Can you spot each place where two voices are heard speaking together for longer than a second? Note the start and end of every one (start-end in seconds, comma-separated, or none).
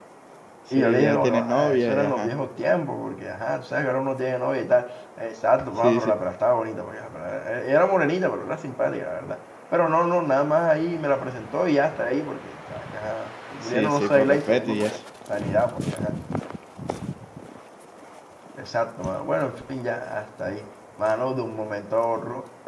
0.7-2.3, 13.6-14.9